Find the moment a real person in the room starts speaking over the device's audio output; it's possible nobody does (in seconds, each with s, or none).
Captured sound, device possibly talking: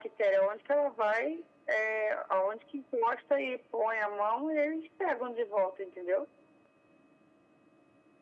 none